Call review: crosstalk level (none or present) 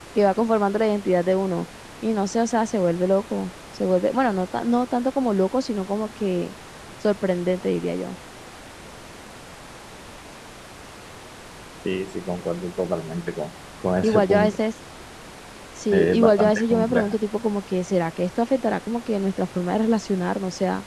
present